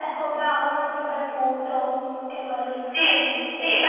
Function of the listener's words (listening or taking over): taking over